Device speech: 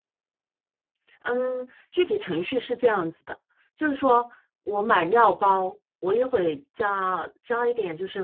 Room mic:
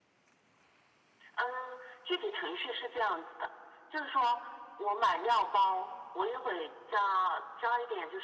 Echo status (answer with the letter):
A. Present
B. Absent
A